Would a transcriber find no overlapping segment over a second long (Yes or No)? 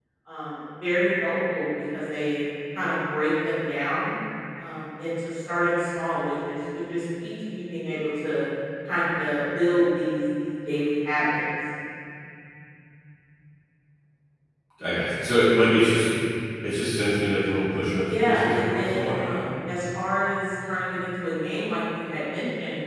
No